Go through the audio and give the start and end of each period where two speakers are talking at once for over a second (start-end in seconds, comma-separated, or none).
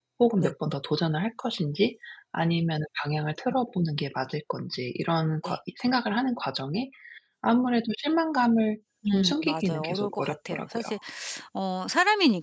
9.1-10.8